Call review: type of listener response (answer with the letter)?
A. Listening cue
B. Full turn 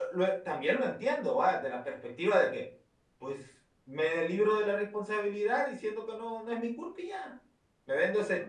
A